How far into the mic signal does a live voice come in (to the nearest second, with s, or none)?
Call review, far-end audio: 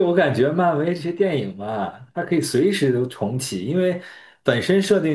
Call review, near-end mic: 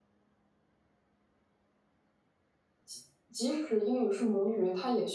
3 s